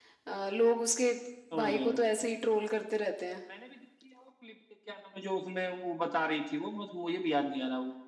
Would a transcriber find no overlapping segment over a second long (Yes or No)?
Yes